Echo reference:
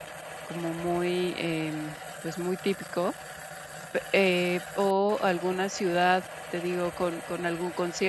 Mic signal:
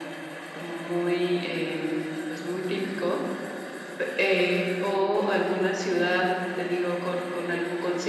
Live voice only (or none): none